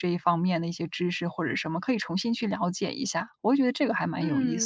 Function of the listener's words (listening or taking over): taking over